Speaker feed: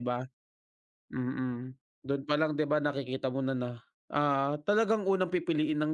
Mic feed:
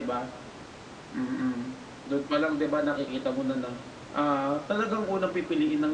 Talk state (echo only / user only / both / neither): echo only